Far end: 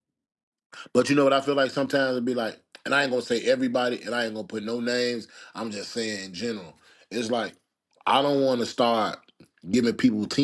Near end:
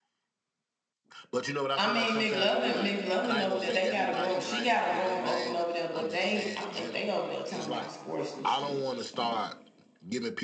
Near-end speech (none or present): present